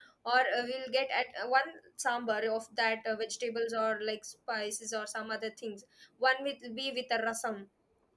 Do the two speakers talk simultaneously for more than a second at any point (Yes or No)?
No